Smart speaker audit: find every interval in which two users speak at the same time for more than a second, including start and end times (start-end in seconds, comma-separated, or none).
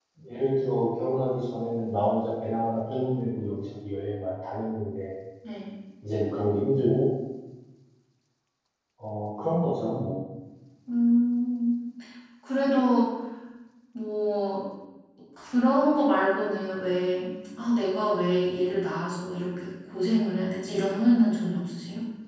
none